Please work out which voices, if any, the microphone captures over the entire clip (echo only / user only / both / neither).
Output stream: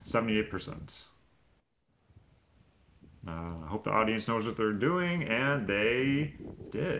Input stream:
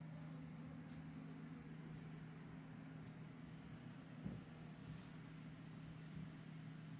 neither